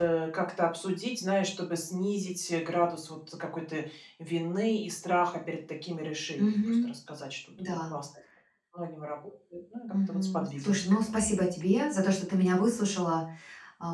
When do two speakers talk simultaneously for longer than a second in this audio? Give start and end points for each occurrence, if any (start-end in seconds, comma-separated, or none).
9.9-11.3